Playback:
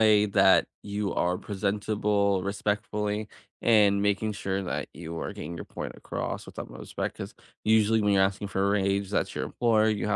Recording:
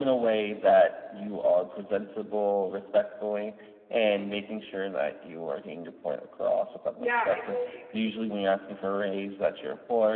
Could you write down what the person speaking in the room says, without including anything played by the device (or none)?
Yeah, I totally agree.